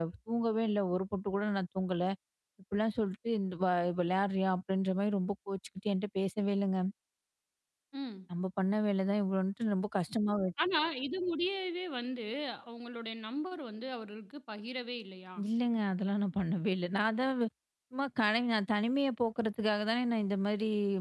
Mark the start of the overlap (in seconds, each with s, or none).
none